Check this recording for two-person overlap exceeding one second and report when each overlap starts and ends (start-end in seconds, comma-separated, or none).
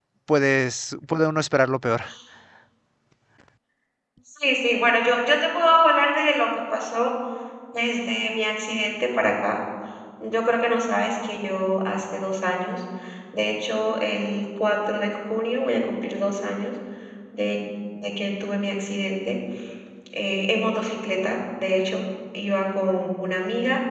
none